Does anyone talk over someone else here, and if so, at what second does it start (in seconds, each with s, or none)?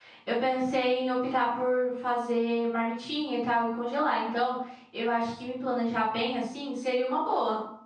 none